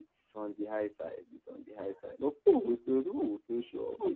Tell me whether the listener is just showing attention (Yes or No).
No